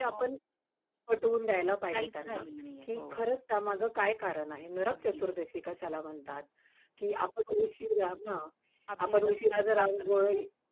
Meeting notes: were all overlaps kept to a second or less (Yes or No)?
No